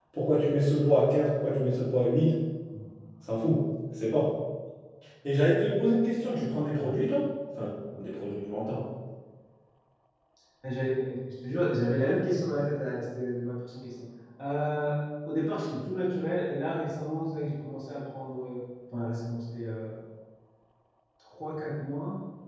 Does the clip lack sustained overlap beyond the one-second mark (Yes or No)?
Yes